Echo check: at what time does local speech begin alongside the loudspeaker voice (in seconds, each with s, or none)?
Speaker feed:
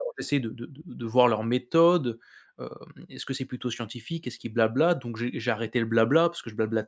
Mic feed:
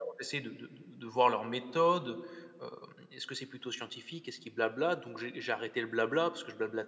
none